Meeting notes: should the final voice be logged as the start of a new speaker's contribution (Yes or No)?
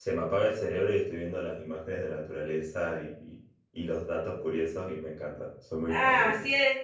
Yes